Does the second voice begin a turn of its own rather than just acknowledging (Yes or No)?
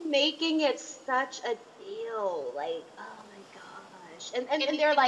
Yes